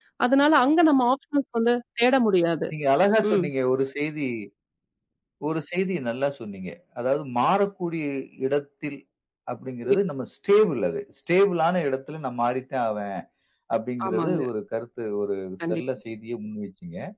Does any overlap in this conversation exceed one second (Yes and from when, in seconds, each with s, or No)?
No